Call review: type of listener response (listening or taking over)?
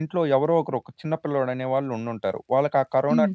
listening